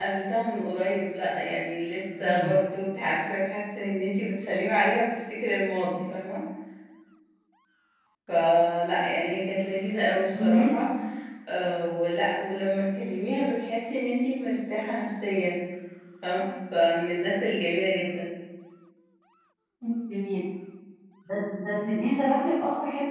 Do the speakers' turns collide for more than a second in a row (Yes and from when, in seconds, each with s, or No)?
No